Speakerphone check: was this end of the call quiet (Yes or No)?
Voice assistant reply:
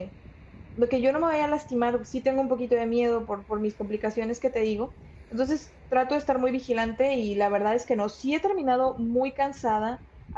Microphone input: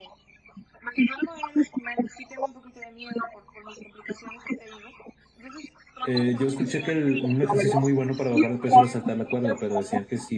No